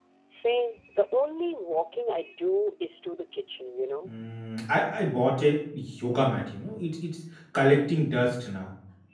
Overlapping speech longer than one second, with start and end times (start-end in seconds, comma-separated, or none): none